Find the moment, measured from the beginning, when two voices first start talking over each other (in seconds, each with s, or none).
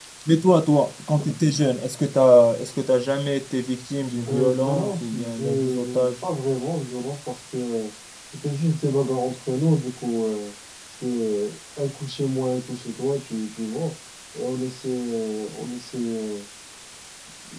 4.2 s